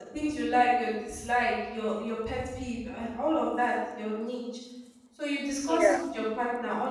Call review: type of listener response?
listening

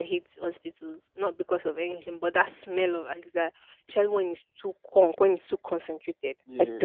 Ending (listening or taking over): taking over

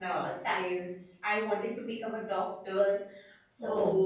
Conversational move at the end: listening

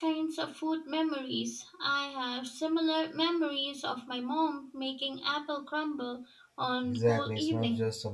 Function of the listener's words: taking over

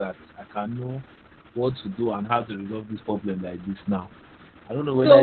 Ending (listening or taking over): taking over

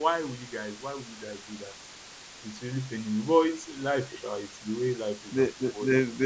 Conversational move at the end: taking over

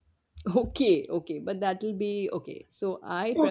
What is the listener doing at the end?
taking over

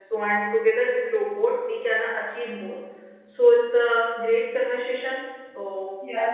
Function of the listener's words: taking over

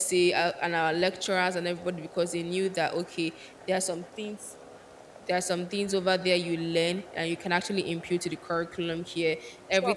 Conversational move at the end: listening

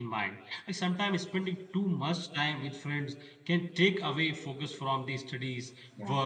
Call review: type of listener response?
listening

